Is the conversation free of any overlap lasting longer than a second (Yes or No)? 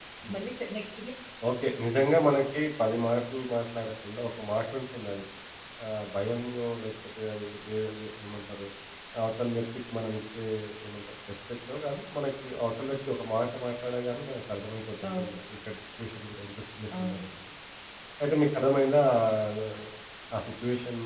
Yes